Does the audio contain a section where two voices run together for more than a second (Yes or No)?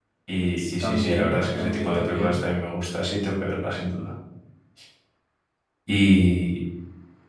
Yes